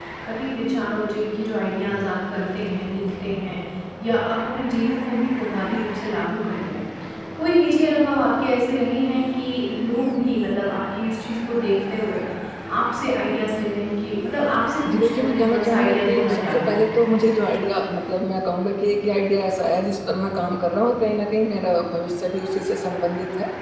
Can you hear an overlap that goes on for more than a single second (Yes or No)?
Yes